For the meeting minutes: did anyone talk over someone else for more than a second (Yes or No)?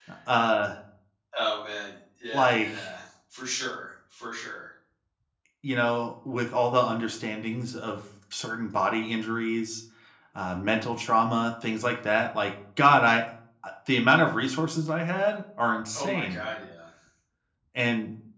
No